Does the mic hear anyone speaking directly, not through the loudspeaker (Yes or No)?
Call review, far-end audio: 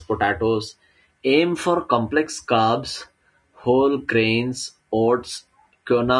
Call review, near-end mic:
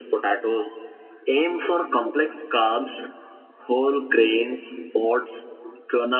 No